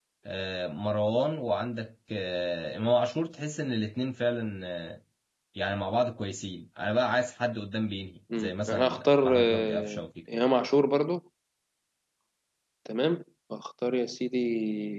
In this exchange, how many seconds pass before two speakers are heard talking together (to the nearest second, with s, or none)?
8 s